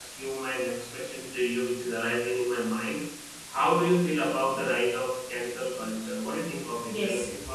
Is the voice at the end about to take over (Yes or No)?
Yes